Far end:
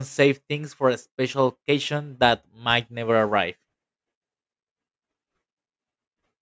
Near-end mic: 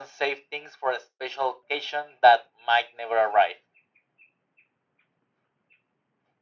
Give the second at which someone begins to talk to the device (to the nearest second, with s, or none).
none